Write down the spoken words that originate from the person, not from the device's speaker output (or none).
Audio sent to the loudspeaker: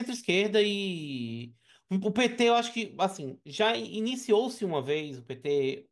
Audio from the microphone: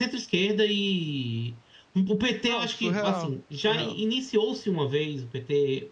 Não, surreal, surreal.